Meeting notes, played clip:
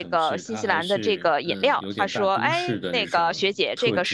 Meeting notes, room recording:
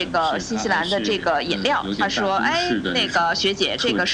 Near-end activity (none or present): none